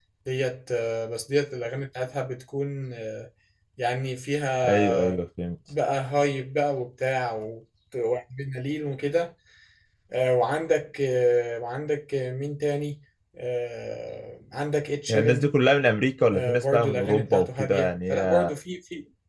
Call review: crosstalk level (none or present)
present